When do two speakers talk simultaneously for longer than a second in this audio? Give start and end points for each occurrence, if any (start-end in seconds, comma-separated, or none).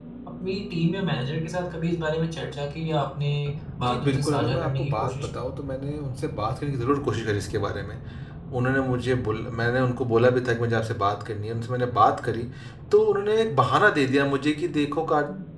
3.8-5.3